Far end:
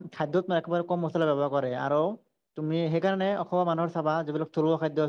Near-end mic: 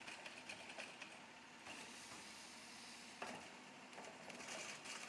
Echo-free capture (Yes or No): Yes